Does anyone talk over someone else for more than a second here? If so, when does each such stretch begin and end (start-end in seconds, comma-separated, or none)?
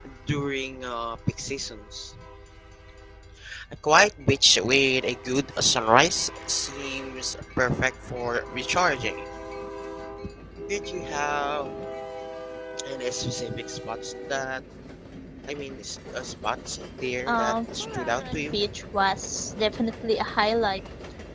17.3-18.6